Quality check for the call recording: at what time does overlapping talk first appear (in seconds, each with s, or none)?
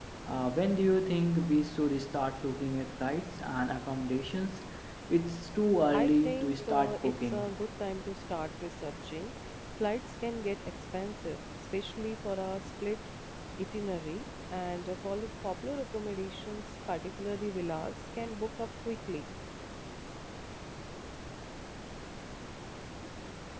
5.9 s